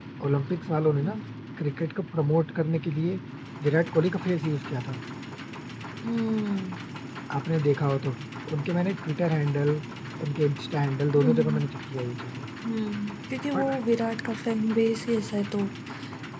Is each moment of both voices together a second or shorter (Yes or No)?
Yes